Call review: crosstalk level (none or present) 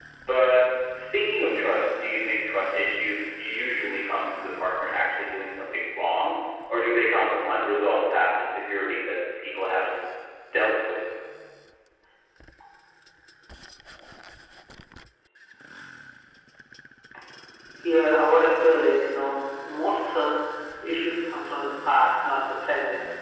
none